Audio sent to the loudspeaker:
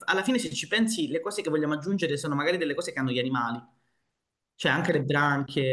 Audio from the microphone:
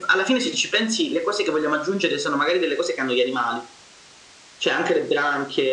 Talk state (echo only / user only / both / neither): echo only